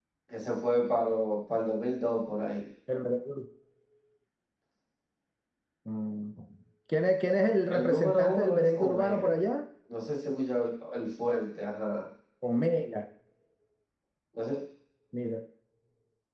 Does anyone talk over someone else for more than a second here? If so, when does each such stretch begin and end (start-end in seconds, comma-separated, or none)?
7.7-9.3